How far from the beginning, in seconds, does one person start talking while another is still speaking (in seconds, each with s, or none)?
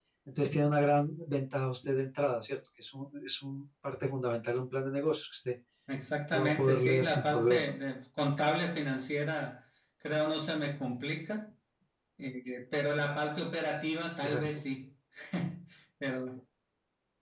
6.3 s